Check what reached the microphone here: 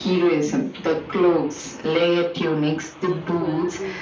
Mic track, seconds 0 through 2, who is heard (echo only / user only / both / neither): echo only